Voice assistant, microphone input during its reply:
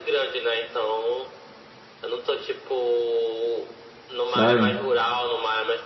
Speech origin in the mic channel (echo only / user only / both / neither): both